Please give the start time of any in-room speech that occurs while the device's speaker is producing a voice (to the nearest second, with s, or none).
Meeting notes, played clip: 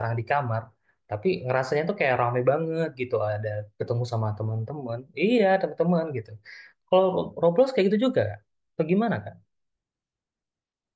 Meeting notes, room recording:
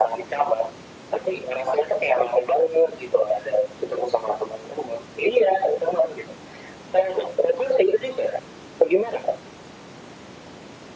none